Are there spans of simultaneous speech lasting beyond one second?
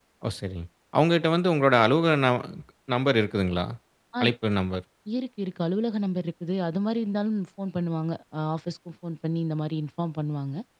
No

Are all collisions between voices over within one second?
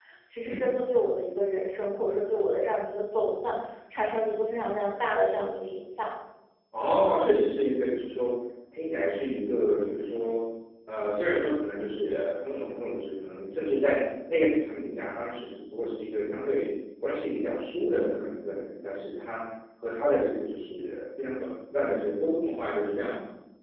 Yes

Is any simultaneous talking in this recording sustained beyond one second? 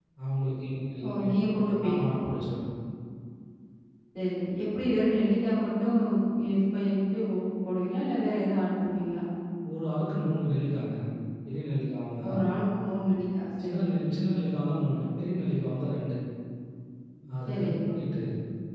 No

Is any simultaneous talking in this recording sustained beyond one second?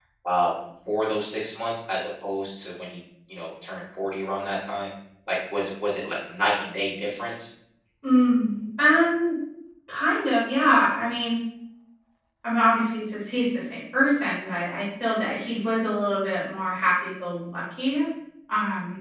No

